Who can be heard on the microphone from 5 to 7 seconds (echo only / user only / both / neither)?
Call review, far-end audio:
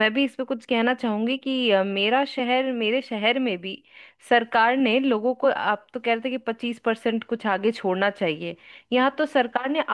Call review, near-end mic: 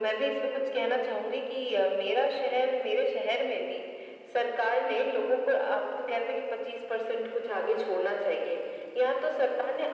echo only